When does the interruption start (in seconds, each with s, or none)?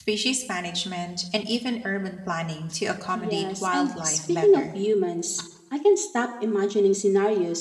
3.2 s